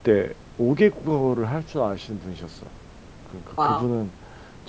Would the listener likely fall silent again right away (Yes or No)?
Yes